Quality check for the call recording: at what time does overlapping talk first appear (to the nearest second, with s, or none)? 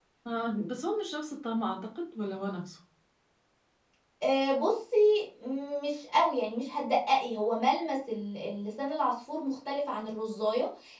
none